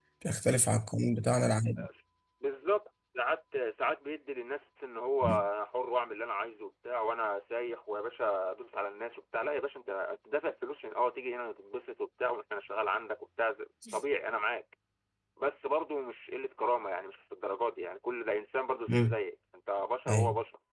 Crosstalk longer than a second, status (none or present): none